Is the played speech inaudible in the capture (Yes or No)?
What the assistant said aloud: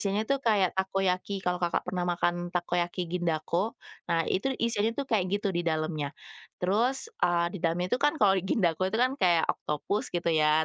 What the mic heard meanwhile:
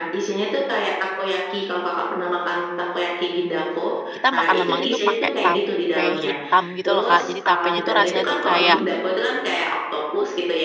No